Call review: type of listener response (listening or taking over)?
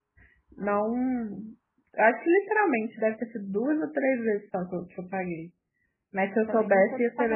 taking over